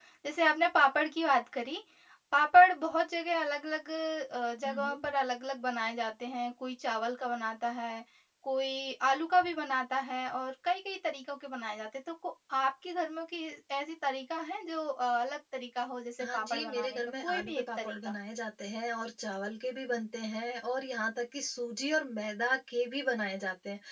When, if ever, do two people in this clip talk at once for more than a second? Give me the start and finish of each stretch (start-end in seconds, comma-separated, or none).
16.2-18.1